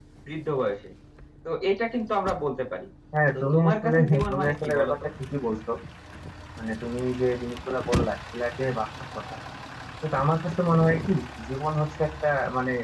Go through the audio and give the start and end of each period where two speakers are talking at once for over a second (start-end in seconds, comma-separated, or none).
3.3-5.0